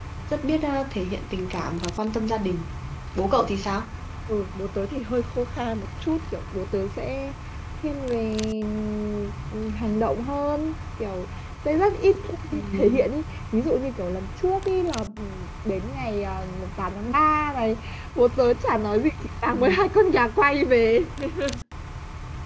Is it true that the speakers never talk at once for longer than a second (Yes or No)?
Yes